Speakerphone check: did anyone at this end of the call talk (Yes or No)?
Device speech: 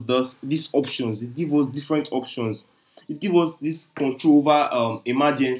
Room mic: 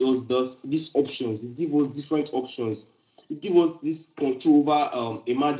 No